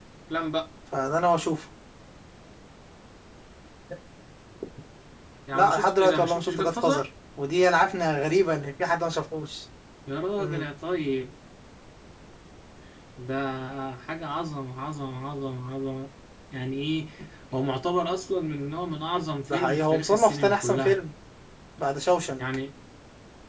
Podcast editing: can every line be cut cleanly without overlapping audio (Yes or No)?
No